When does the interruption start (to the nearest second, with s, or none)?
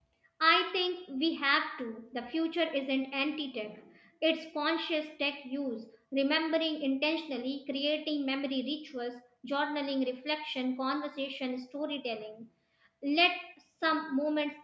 none